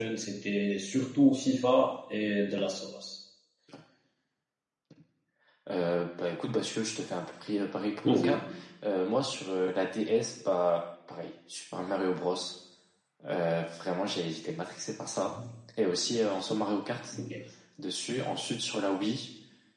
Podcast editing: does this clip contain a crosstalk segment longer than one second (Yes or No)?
No